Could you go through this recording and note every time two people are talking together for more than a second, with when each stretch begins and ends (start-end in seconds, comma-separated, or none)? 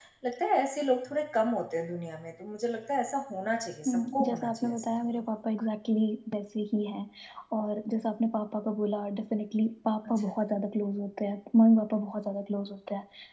3.9-5.2